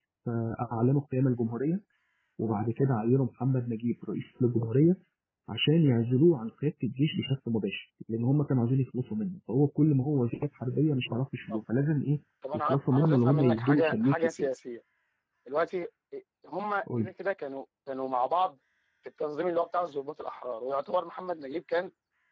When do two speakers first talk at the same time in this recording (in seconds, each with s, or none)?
12.7 s